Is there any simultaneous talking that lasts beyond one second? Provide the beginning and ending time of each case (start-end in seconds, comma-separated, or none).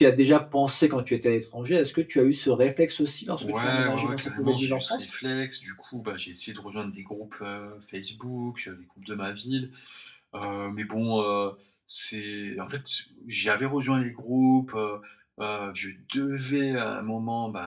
3.4-5.1